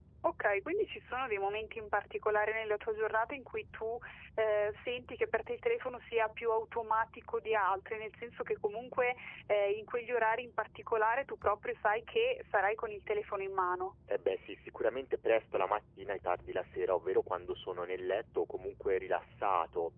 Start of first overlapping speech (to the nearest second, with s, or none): none